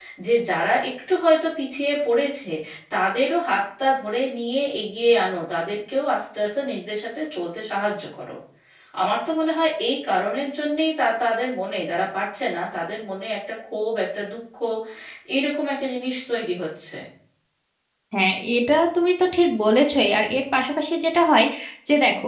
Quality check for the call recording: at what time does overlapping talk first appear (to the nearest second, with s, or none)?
none